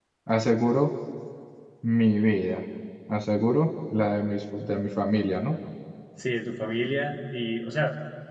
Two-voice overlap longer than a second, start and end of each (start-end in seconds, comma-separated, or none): none